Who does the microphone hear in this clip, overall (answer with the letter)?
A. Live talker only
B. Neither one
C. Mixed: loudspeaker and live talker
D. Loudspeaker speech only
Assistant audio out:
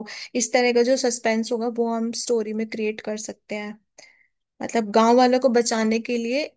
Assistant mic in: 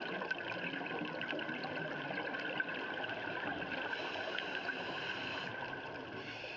B